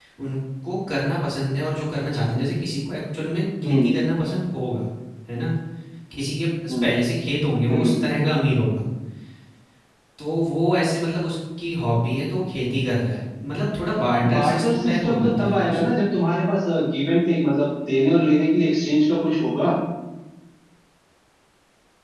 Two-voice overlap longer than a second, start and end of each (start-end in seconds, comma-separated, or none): 14.3-15.9